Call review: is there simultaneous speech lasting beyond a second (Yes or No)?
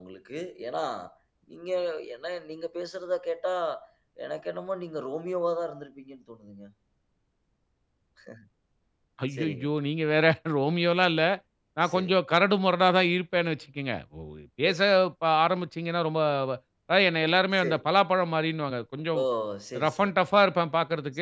No